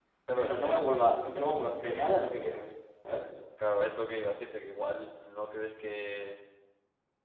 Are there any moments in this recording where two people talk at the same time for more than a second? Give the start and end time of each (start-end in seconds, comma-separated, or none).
none